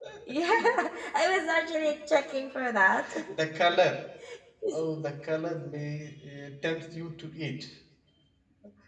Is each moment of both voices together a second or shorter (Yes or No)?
Yes